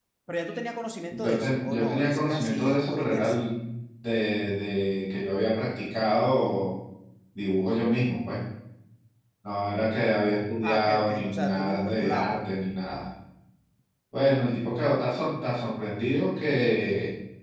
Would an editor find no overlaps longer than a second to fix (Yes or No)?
No